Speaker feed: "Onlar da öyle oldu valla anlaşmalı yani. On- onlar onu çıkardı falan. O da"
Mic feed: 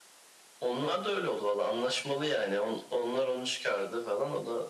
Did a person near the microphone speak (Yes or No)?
No